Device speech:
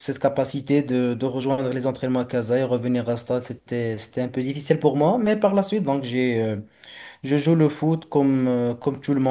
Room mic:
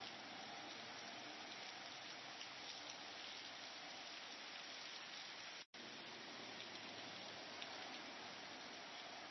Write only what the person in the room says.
none

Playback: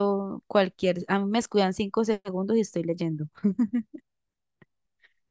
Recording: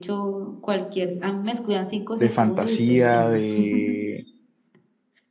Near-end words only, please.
de fantasía, de,

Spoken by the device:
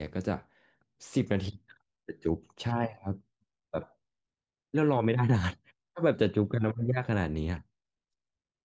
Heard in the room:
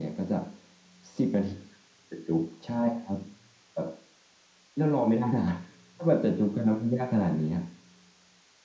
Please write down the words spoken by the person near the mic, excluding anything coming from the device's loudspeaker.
none

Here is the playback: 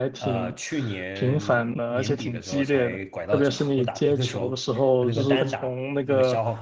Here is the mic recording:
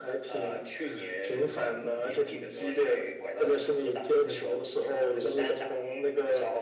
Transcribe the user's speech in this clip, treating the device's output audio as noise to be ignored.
none

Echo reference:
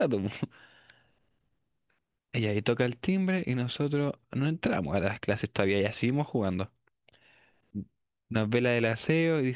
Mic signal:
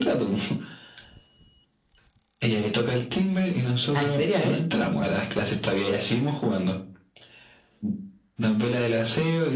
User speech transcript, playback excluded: Ah, ¿En serio, eh?

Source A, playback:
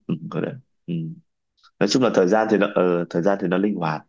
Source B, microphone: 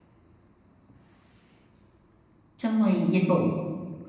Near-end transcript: xong rồi dịch vụ

